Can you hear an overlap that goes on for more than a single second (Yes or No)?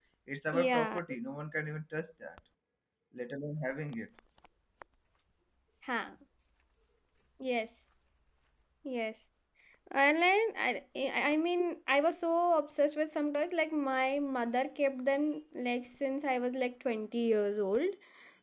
No